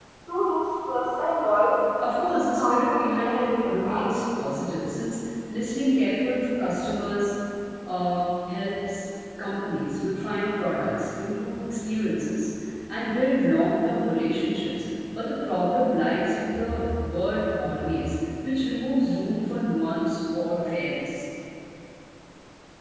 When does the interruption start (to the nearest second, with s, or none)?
2 s